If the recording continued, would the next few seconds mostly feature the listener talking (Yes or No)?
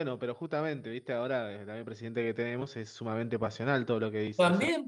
Yes